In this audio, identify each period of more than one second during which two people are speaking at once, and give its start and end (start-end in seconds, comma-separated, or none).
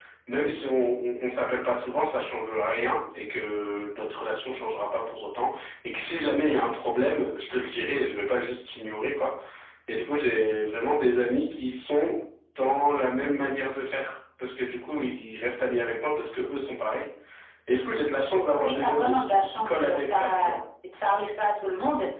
18.6-20.6